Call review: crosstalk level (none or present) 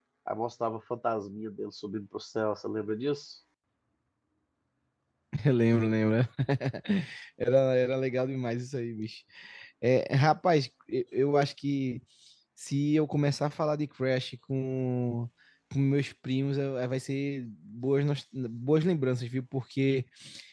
none